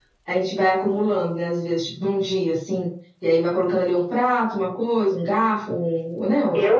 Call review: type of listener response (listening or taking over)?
taking over